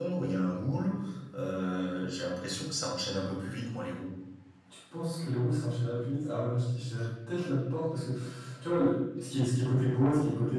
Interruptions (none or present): none